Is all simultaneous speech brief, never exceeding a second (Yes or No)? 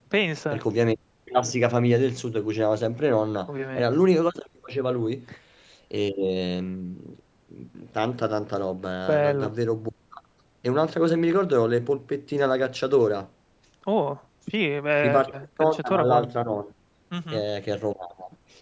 No